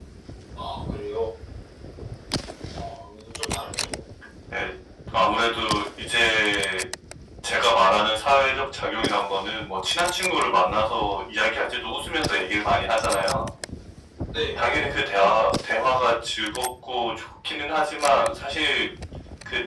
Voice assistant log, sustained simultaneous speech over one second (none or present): none